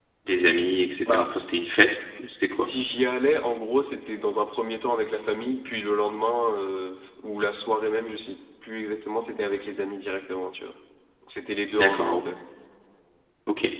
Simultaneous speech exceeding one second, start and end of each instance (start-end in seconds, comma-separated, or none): none